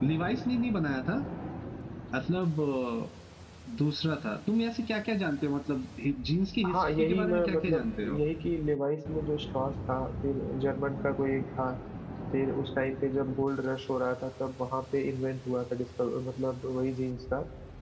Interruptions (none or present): present